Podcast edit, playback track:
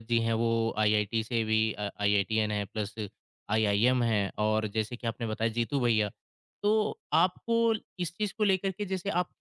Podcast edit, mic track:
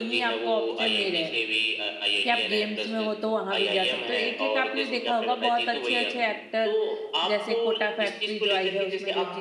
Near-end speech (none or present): present